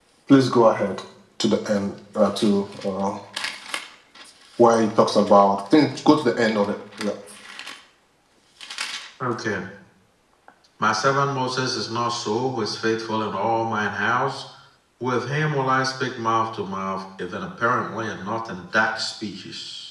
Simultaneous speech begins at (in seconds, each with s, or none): none